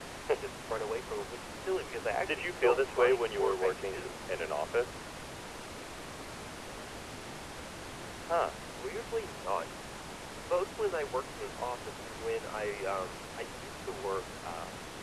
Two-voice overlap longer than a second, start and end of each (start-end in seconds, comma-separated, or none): 2.3-4.1